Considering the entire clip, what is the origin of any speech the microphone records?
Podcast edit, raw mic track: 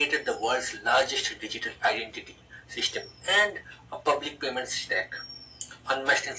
echo only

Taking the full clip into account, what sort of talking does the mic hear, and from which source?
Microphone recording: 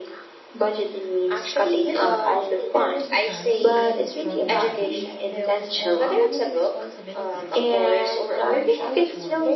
both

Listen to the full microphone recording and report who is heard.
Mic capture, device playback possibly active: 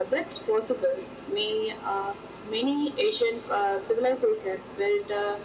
echo only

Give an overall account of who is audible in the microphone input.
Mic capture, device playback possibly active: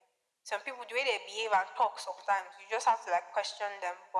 echo only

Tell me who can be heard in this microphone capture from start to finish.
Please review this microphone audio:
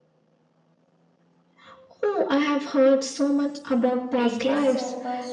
both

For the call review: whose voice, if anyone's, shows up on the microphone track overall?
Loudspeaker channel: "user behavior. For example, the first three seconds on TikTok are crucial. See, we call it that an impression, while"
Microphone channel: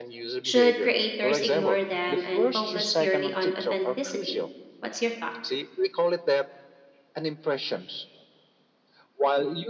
both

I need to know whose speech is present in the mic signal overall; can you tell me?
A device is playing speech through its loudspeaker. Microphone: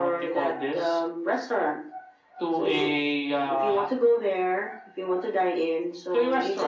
echo only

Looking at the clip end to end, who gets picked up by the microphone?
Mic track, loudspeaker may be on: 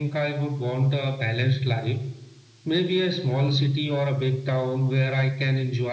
echo only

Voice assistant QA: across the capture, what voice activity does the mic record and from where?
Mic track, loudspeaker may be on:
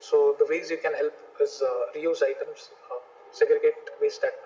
echo only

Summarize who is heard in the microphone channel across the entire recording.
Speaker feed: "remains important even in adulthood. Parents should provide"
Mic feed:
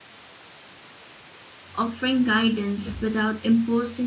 user only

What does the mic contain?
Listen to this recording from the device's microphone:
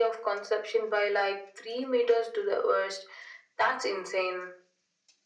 echo only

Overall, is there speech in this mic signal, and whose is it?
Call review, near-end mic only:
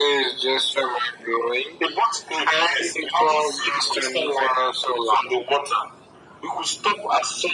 echo only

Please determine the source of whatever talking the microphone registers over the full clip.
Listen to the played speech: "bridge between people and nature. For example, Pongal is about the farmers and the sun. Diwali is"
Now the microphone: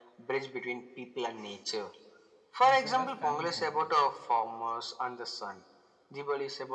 both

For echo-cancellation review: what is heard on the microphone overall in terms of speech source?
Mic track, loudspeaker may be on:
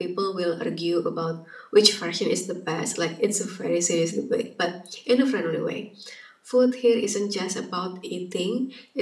echo only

